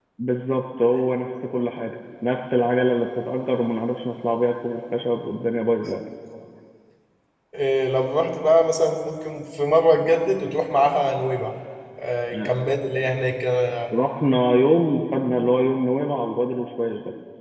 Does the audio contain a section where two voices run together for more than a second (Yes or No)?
No